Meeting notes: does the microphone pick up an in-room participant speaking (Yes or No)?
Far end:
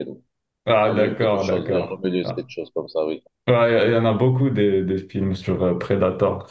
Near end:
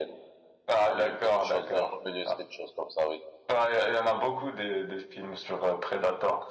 No